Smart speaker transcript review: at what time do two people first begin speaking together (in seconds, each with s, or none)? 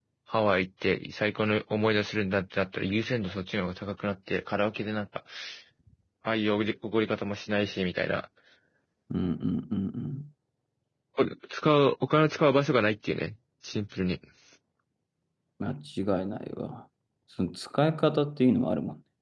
none